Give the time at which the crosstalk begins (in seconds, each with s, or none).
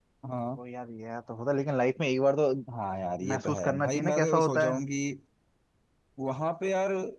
3.3 s